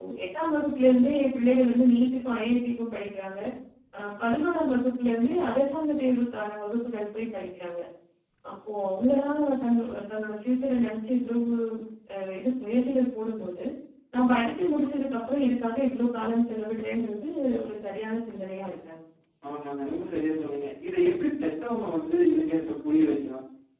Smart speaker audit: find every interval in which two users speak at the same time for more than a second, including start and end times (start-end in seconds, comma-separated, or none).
none